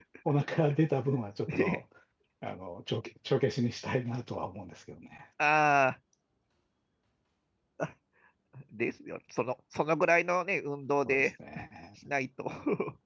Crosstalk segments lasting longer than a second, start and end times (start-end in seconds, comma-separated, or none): none